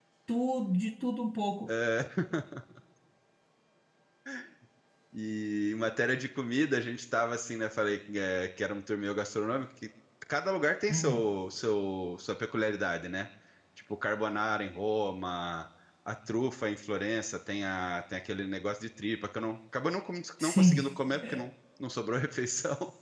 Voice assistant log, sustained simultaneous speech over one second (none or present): none